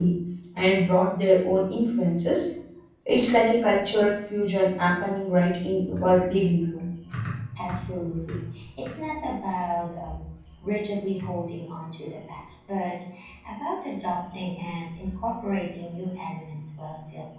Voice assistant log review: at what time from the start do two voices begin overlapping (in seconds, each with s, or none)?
none